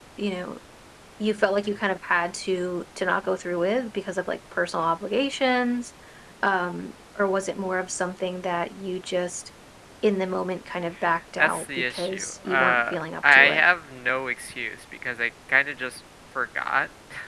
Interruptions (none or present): present